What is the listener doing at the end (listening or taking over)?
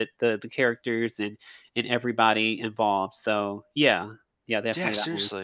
taking over